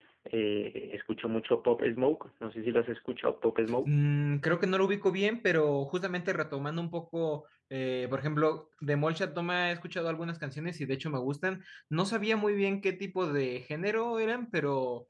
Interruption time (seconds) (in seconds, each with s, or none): none